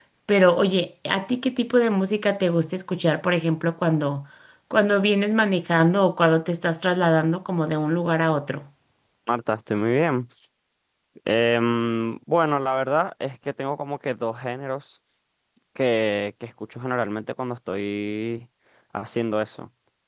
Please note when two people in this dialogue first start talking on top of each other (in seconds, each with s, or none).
none